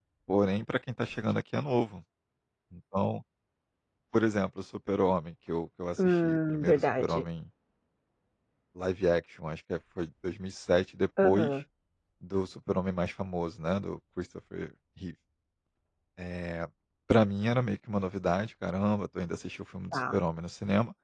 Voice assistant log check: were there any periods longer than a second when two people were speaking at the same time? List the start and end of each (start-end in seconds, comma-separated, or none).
6.0-7.2